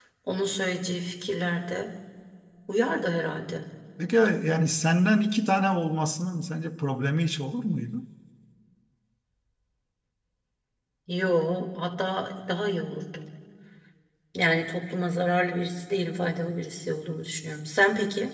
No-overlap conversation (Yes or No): Yes